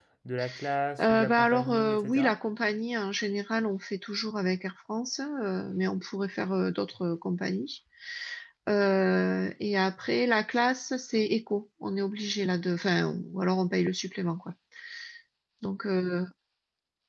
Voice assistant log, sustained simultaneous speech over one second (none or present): present